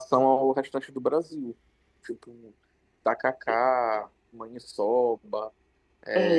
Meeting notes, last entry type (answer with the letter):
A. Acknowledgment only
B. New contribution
B